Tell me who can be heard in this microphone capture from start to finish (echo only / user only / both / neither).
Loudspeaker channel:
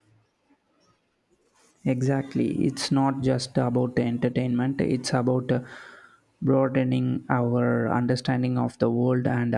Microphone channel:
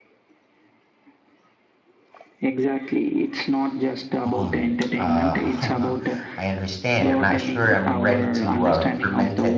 both